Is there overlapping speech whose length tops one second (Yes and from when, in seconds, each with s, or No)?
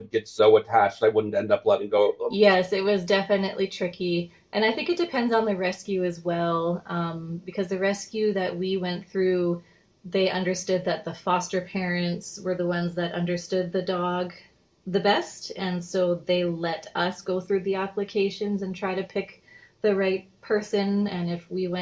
No